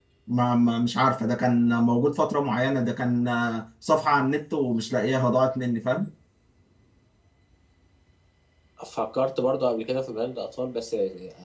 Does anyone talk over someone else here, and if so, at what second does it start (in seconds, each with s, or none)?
none